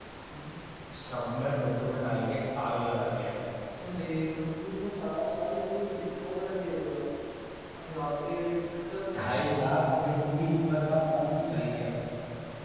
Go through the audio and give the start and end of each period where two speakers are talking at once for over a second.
none

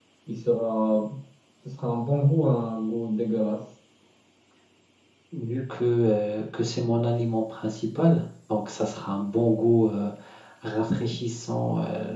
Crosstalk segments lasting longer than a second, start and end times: none

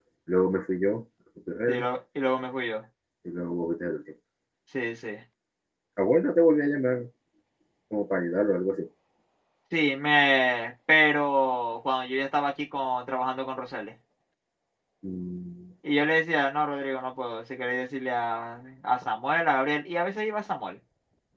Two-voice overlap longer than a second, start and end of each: none

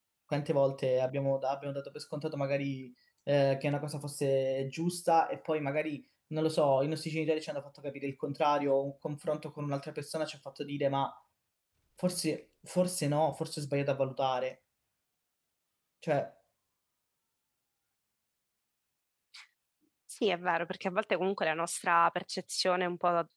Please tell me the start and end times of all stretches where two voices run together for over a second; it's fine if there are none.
none

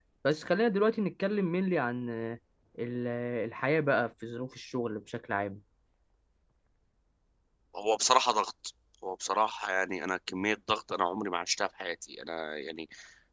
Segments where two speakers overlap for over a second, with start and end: none

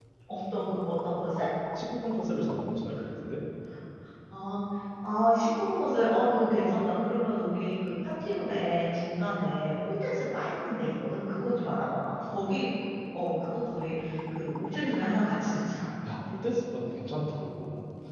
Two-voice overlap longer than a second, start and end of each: none

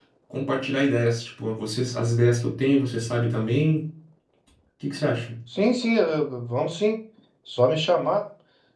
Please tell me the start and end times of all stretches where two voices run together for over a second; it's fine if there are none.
none

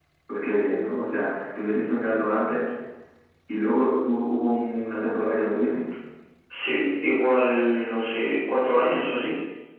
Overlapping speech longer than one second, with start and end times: none

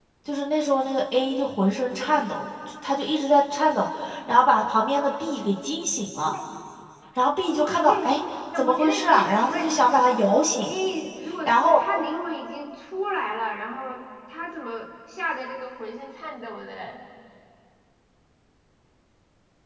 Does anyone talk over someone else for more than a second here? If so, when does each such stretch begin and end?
8.6-10.0

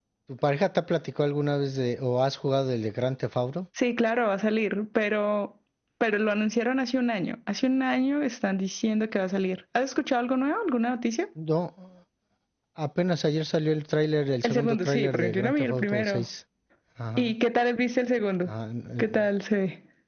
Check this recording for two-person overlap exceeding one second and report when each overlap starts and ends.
14.4-16.2

